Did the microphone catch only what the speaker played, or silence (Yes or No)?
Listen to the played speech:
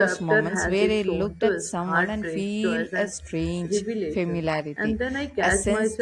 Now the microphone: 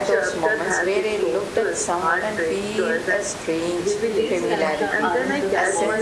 No